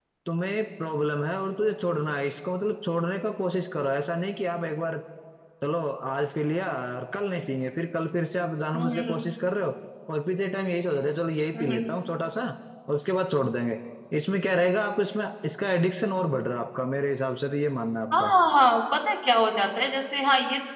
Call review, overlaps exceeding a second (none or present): none